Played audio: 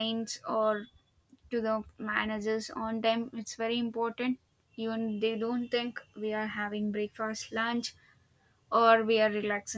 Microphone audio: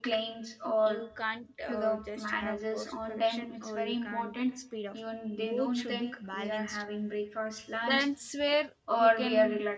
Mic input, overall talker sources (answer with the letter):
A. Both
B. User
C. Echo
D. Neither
A